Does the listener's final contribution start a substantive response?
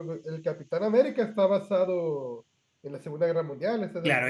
Yes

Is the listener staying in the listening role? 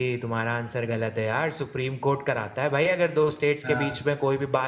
Yes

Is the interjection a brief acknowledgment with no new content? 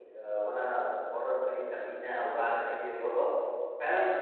Yes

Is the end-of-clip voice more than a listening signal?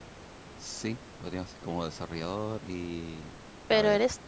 Yes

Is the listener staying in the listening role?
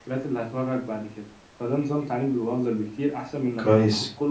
Yes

